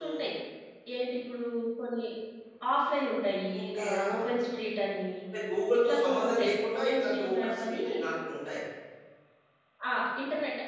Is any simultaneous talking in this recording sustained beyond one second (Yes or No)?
Yes